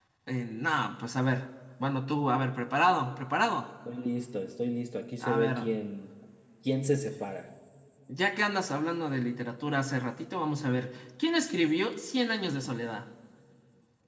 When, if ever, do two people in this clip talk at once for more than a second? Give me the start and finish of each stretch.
none

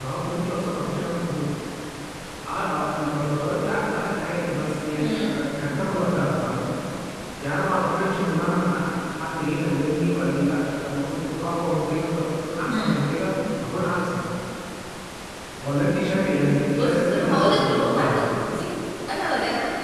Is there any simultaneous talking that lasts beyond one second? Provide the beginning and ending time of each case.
16.6-18.1

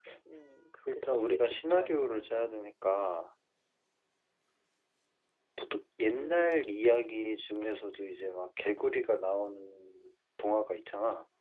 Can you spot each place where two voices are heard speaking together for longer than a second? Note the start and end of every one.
0.9-2.6

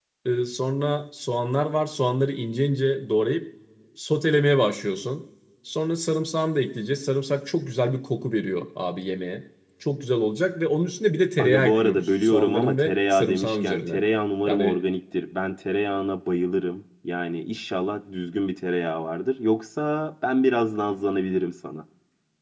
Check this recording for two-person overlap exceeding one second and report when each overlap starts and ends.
11.4-14.0

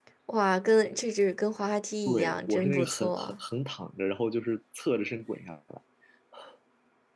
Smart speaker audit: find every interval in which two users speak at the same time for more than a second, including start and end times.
2.0-3.3

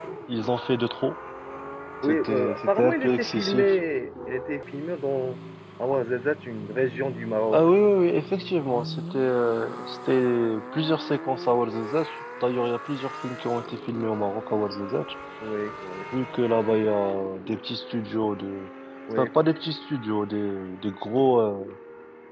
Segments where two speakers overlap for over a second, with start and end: 2.0-3.7

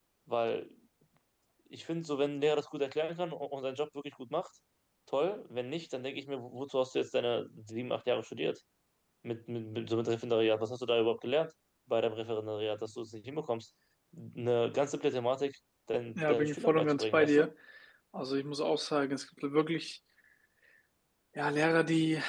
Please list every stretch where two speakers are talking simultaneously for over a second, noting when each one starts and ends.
16.2-17.5

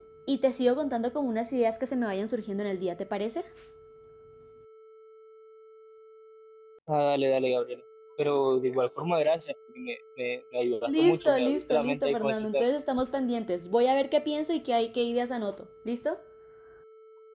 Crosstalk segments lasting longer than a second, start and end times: 10.9-12.7

